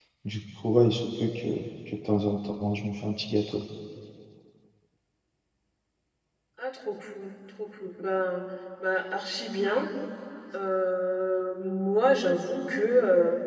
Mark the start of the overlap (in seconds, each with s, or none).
none